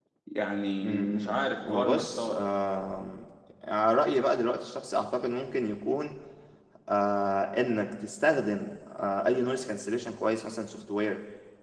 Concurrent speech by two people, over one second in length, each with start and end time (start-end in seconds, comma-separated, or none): 0.8-2.4